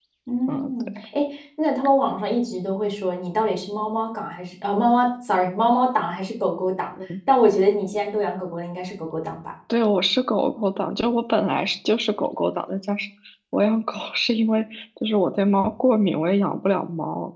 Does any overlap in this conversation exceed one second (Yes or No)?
No